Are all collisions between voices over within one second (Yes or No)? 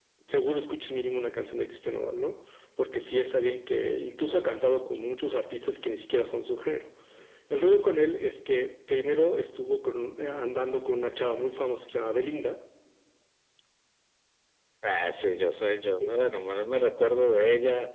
Yes